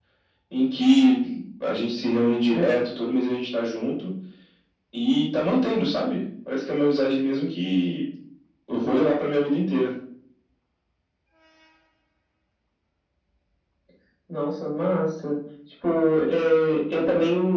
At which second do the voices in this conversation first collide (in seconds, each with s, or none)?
none